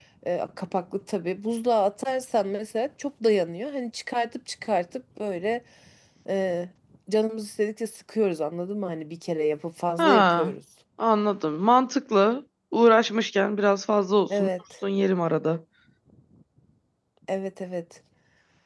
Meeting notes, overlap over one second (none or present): none